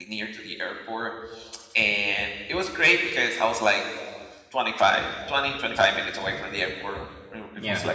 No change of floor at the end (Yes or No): Yes